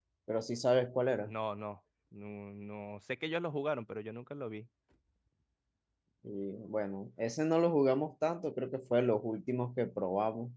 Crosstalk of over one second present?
No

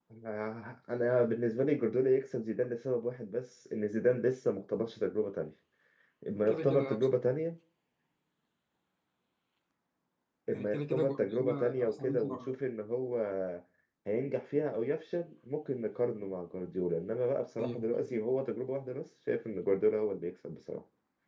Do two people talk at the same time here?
Yes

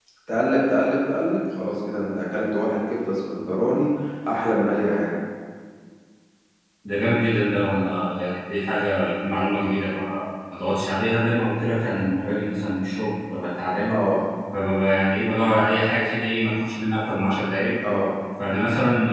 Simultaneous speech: No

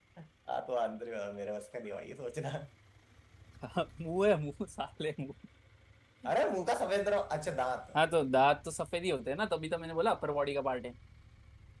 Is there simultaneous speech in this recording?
No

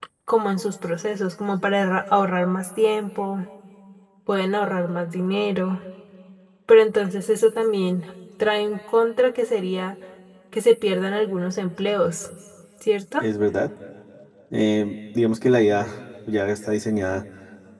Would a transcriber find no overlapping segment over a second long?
Yes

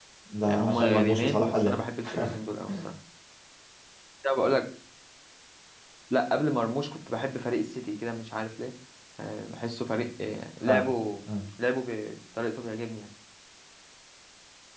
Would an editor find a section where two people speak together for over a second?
Yes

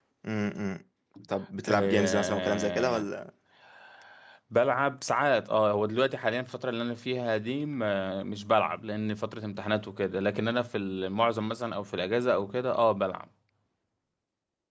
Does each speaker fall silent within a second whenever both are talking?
No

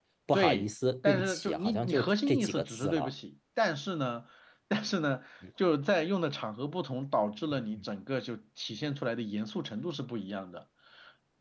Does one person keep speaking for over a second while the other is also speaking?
Yes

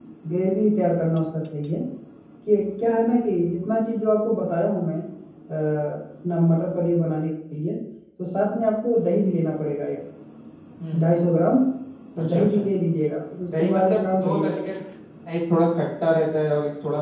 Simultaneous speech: Yes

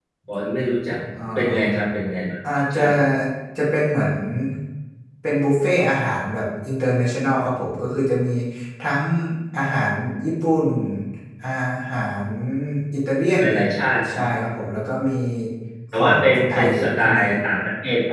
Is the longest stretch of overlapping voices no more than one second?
No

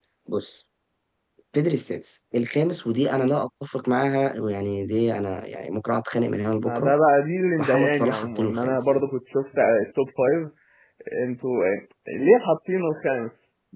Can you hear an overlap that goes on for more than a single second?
Yes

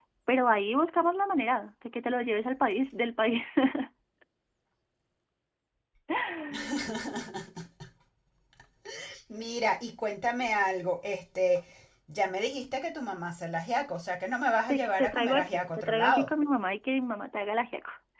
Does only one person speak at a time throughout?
No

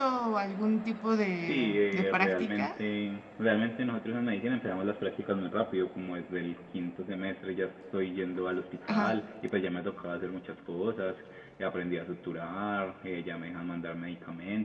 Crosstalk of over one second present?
Yes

